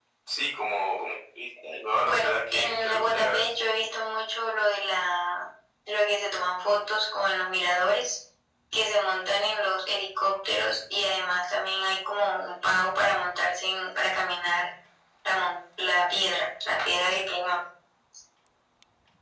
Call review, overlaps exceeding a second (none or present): present